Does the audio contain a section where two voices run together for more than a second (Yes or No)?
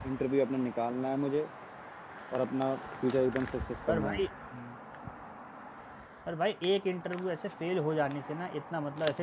No